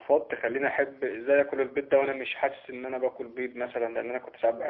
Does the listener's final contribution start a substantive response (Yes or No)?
Yes